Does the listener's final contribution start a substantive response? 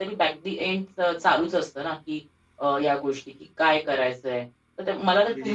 No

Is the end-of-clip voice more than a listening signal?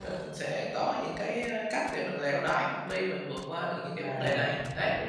Yes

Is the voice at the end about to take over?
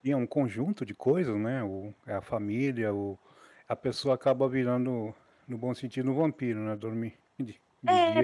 Yes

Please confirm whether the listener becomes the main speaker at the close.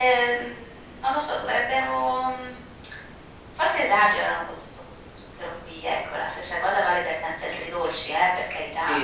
Yes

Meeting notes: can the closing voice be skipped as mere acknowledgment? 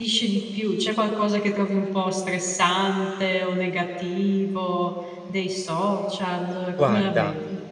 No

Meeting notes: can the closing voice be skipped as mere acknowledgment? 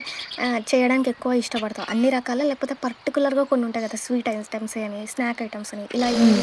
No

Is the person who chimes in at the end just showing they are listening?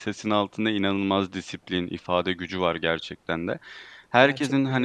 Yes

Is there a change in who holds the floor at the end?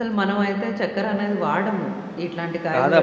Yes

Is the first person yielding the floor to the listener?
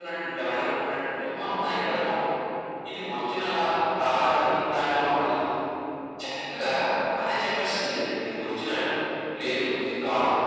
Yes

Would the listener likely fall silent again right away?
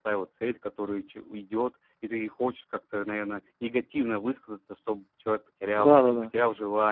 No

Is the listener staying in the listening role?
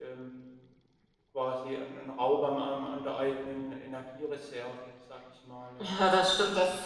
No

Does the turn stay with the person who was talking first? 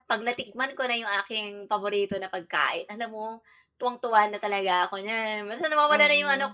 Yes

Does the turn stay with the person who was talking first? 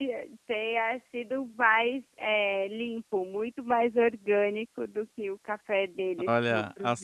No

